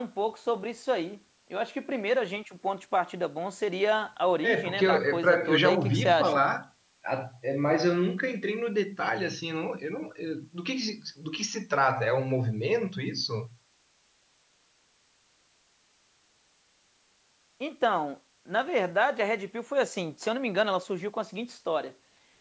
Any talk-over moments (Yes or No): Yes